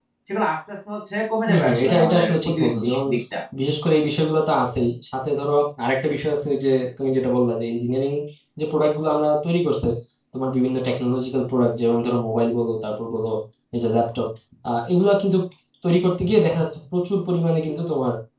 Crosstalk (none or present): present